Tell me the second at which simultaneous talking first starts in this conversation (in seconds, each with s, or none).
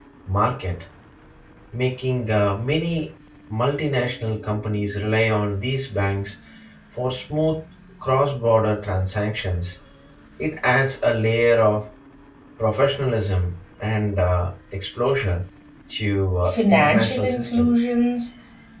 16.4 s